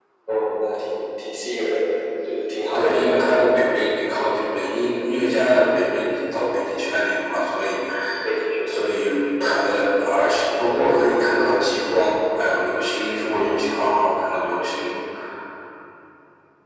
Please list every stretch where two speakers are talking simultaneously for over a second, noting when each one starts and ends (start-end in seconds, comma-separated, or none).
none